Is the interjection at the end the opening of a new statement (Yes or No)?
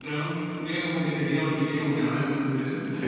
Yes